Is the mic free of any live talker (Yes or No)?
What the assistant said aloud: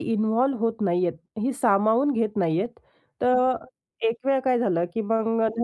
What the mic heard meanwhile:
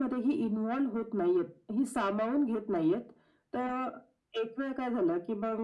Yes